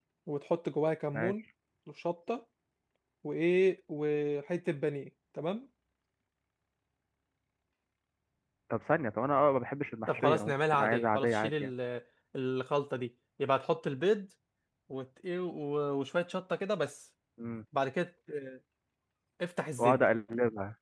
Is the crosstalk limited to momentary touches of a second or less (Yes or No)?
No